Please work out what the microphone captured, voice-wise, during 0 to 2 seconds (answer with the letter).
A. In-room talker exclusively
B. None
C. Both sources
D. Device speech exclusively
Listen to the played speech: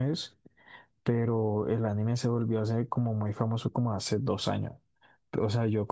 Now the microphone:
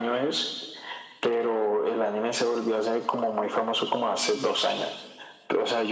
D